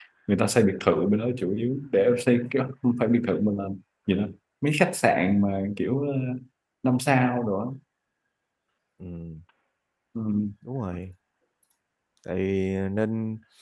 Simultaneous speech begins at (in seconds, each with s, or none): none